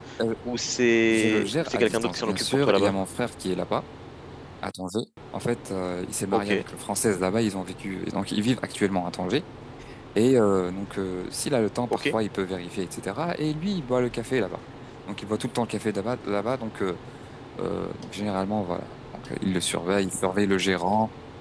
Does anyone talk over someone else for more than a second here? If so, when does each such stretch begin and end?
1.1-2.9

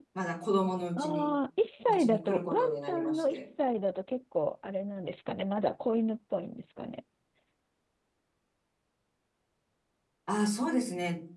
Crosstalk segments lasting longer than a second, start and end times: 1.9-3.4

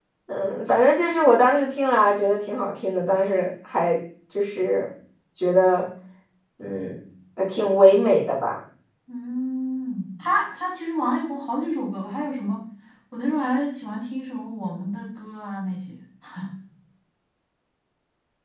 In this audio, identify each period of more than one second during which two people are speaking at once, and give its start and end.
none

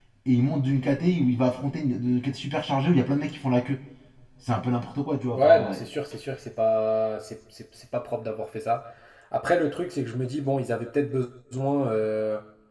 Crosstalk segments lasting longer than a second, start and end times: none

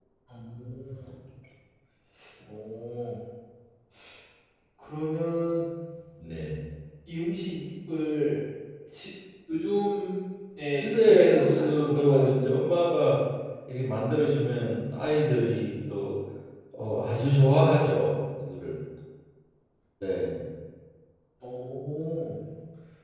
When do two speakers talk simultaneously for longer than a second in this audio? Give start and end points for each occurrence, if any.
10.8-12.3

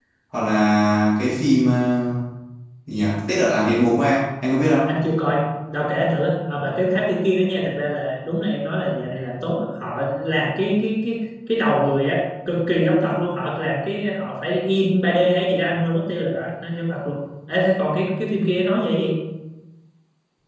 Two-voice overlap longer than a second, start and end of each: none

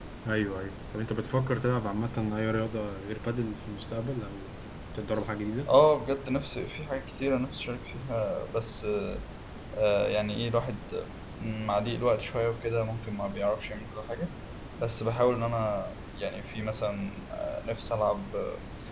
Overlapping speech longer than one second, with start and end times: none

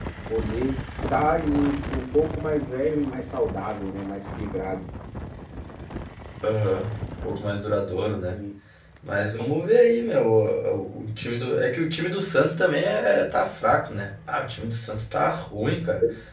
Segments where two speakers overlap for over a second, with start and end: none

